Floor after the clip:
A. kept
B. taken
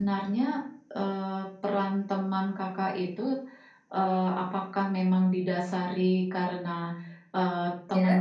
A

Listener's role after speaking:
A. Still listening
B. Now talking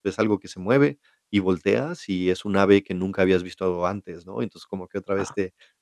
A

